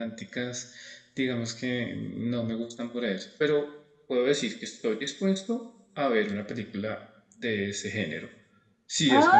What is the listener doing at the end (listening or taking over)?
taking over